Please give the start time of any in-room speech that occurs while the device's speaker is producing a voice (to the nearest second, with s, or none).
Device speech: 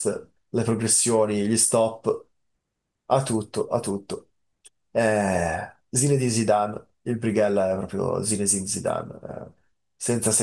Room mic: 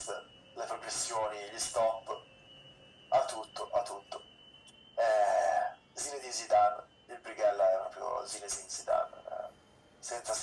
none